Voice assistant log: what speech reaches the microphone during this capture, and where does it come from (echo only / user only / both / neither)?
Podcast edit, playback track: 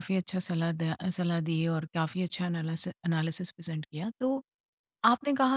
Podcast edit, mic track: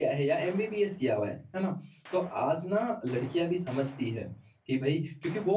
user only